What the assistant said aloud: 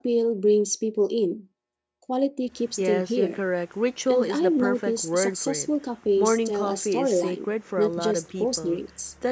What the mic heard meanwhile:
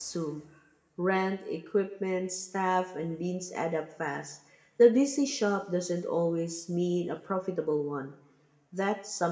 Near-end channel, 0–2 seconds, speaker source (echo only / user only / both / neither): user only